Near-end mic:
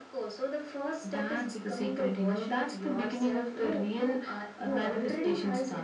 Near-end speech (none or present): present